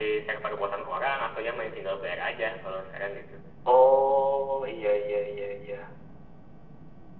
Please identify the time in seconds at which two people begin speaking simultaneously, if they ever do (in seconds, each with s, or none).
none